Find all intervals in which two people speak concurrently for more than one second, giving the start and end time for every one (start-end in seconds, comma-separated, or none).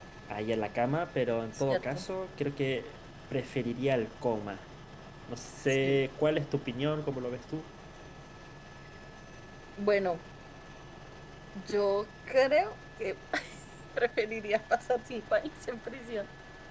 none